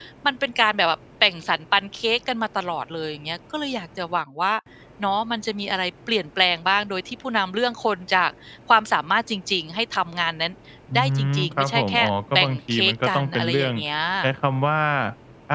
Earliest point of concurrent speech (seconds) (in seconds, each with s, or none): 11.0 s